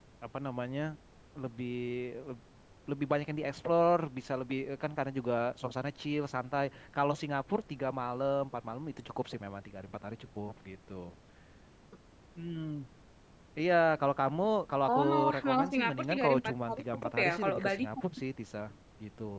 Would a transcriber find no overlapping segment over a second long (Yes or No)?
No